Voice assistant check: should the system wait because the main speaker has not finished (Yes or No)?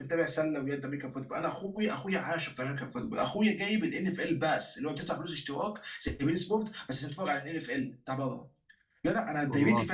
Yes